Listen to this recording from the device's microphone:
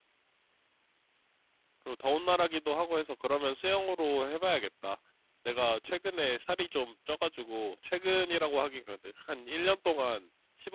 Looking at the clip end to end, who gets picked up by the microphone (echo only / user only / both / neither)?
user only